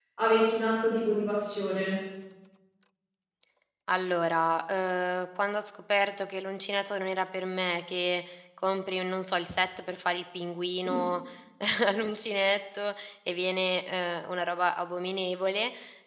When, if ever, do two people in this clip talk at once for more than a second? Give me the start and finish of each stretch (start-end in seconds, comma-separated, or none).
none